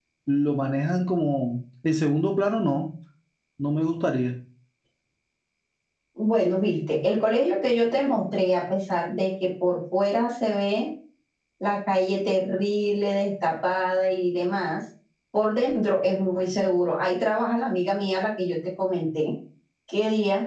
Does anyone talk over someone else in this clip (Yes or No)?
No